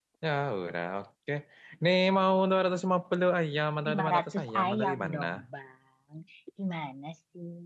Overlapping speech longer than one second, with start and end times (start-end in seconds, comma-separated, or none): 3.9-5.2